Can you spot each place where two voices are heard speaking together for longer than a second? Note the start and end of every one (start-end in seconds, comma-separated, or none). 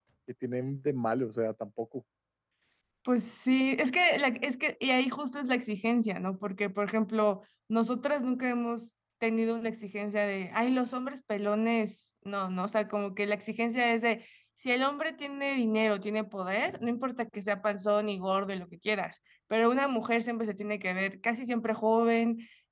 none